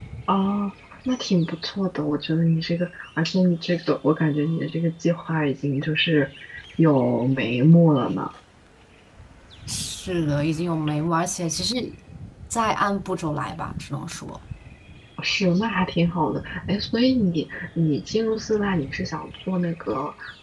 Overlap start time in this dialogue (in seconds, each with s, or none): none